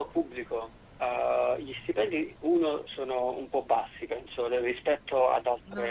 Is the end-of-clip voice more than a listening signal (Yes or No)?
No